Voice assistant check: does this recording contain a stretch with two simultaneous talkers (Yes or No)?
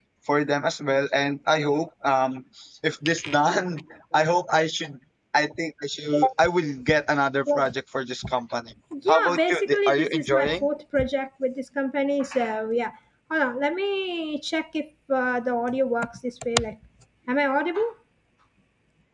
Yes